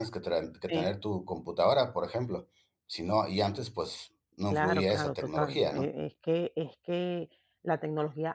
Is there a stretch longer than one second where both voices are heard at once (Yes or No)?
Yes